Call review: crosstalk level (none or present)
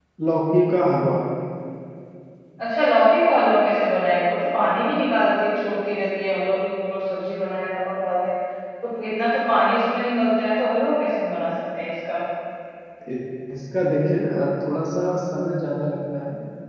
none